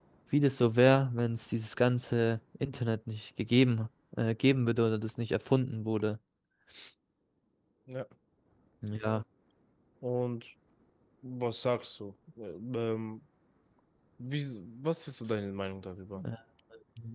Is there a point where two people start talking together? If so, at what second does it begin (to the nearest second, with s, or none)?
none